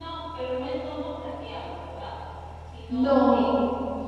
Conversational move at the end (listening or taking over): listening